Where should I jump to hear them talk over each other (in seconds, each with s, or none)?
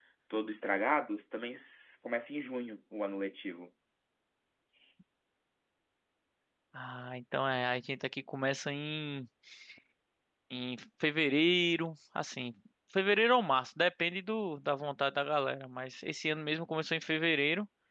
none